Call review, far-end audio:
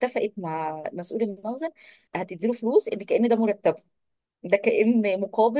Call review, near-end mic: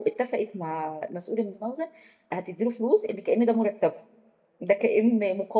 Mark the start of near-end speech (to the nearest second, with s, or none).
none